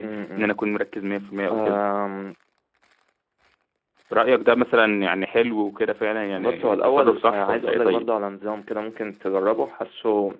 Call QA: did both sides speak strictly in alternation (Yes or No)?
No